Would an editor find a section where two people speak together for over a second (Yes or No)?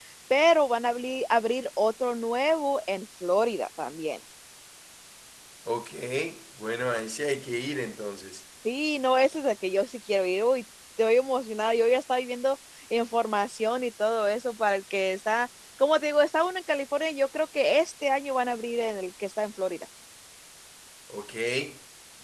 No